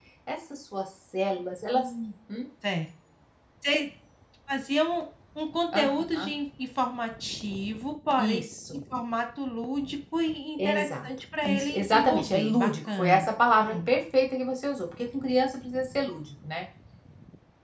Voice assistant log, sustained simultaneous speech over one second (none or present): present